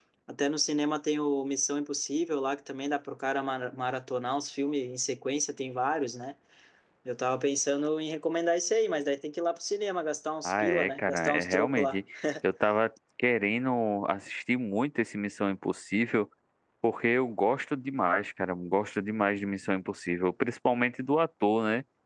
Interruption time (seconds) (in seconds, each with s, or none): 10.4 s